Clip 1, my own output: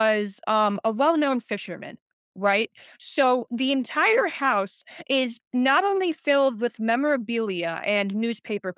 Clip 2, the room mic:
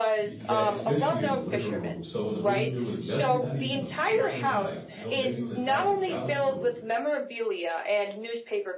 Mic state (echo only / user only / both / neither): both